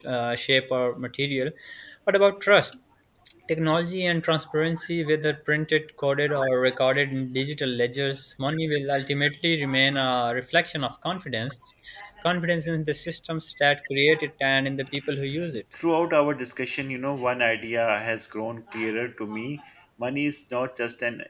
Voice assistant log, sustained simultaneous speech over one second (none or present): none